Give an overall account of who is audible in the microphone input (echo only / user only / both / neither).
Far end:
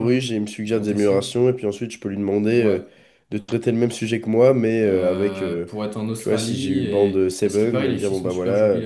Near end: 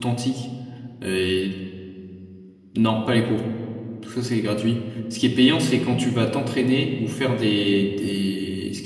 user only